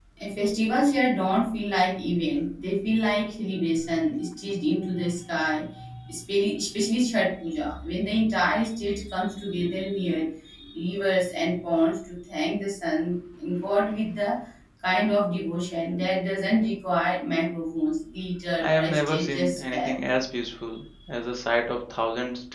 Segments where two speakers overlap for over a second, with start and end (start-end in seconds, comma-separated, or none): 18.6-19.9